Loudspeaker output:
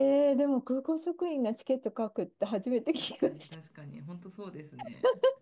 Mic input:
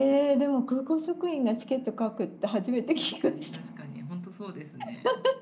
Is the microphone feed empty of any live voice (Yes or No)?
Yes